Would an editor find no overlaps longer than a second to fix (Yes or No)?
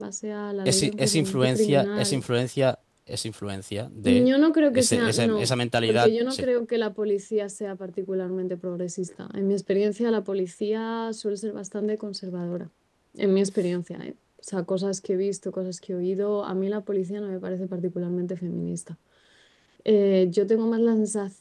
No